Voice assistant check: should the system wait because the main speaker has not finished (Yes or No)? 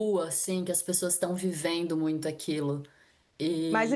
No